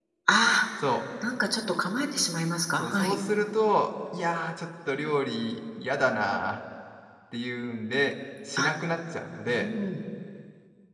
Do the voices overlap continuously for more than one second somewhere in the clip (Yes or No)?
No